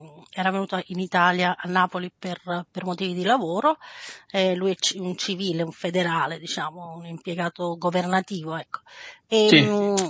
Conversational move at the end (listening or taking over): listening